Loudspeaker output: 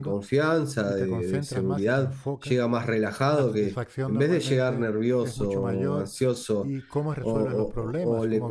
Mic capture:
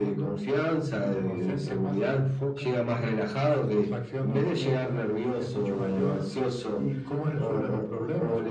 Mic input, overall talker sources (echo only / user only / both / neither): echo only